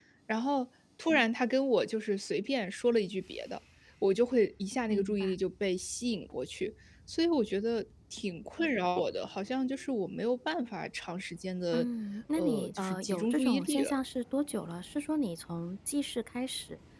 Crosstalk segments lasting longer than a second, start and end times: 12.3-14.0

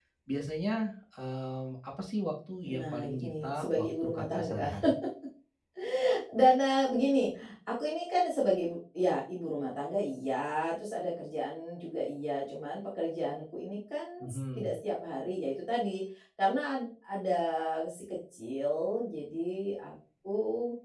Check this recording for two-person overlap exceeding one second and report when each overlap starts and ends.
2.6-4.7

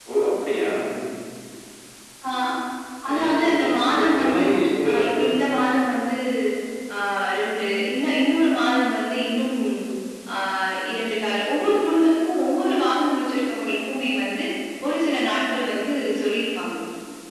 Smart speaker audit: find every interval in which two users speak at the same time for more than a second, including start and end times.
3.1-4.4

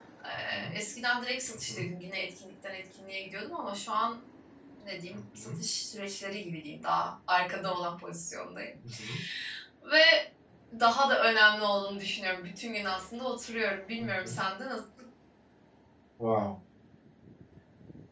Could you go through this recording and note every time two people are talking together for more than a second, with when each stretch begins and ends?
none

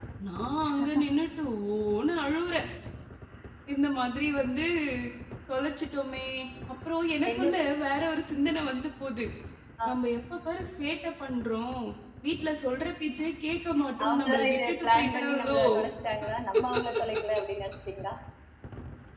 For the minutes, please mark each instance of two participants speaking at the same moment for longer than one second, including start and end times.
14.1-15.6

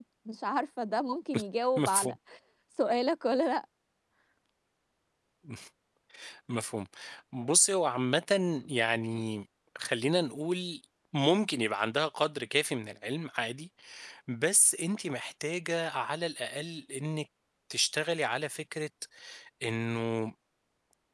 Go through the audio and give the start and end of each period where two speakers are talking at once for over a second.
none

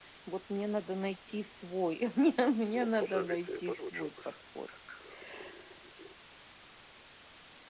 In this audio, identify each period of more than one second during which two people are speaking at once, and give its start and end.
2.7-4.1

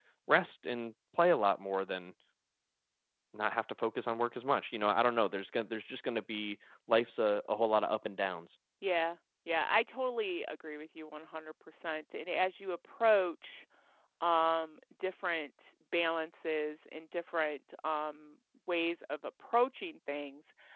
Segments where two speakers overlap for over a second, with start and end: none

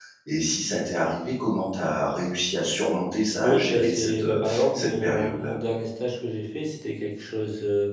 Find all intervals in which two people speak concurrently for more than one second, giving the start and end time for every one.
3.4-5.6

